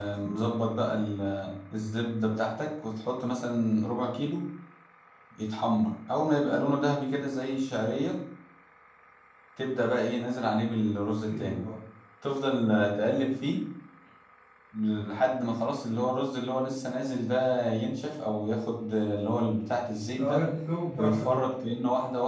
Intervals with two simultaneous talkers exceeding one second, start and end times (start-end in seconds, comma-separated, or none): none